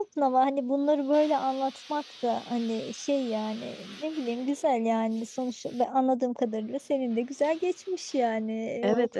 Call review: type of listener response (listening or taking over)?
taking over